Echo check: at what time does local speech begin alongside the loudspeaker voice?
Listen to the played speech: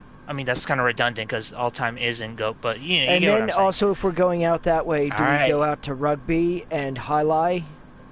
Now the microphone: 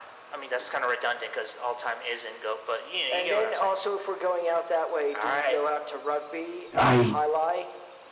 7 s

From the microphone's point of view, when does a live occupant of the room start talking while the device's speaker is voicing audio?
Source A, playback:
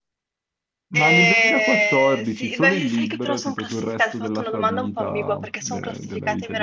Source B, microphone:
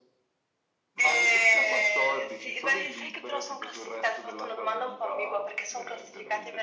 none

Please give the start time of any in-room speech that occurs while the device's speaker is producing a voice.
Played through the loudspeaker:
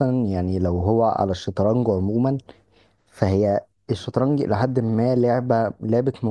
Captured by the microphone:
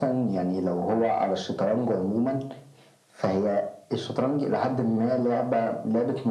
none

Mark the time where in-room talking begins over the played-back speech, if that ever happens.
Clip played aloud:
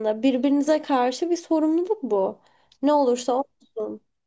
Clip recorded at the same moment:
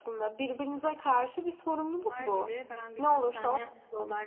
2 s

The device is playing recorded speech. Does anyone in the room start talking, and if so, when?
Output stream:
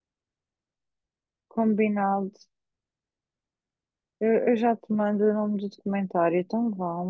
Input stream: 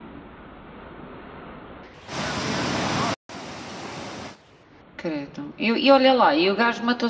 5 s

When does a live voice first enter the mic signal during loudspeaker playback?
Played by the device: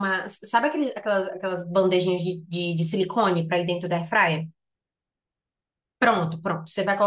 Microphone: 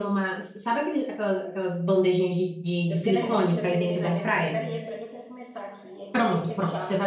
3 s

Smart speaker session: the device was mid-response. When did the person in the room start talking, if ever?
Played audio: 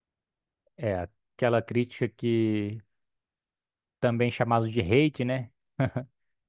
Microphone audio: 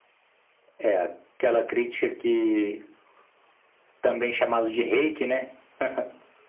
none

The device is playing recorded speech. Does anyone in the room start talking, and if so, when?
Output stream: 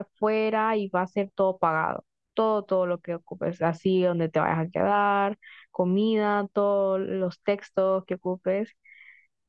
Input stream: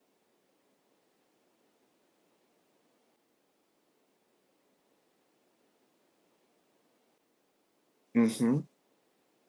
8 s

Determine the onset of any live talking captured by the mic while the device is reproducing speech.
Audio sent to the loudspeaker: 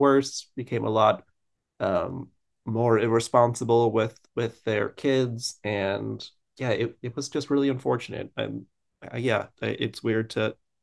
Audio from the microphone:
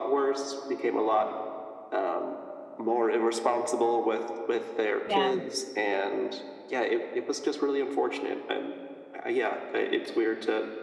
5 s

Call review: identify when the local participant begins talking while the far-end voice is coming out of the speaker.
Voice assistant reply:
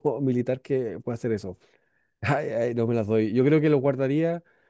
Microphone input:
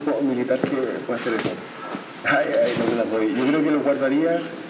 none

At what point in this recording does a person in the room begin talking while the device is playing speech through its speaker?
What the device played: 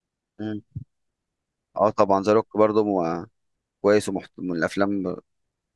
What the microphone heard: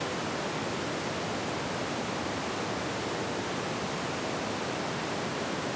none

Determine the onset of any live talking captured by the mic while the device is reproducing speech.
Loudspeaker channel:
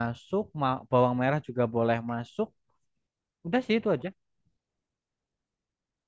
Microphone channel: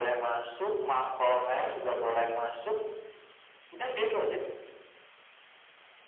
none

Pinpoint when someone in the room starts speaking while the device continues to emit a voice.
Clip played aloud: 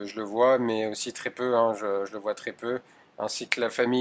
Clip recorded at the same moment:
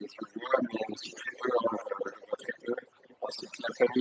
none

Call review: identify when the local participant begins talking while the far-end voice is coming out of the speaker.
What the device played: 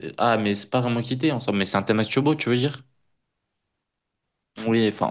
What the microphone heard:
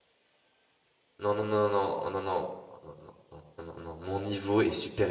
1 s

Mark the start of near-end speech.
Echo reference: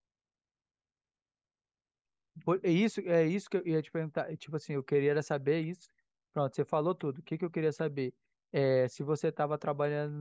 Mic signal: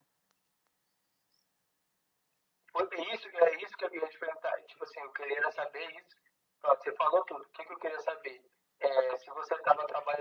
none

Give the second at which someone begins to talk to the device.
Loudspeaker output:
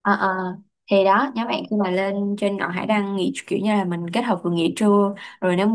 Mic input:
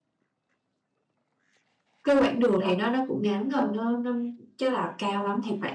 2 s

